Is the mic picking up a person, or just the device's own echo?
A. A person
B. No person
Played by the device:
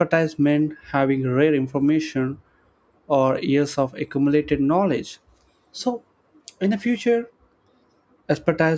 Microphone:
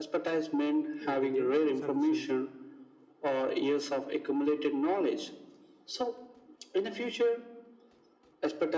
A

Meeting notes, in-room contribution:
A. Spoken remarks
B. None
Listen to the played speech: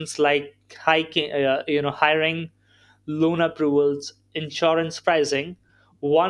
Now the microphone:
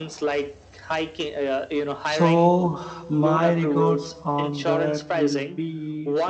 A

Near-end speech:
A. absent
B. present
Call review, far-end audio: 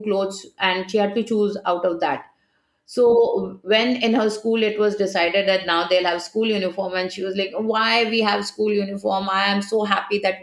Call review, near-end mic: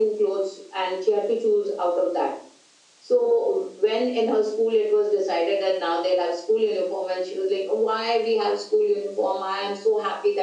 A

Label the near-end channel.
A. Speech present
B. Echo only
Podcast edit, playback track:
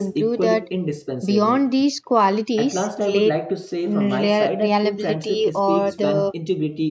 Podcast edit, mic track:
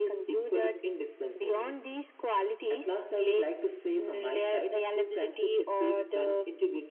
B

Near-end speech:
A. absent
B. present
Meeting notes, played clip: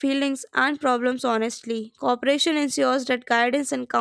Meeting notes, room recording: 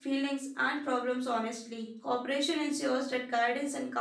A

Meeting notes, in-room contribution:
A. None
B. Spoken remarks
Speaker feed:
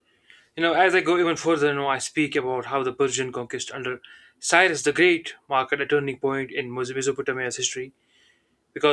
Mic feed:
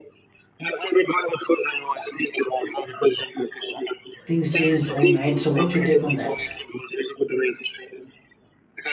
B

